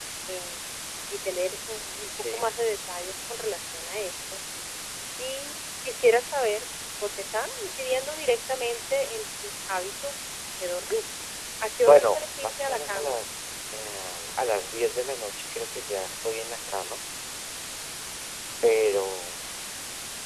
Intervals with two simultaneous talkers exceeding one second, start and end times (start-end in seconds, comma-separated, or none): 11.8-13.2